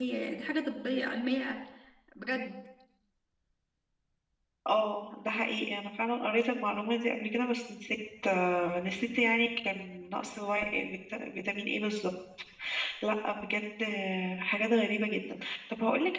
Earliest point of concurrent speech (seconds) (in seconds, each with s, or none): none